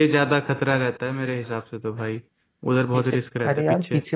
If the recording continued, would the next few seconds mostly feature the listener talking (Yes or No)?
Yes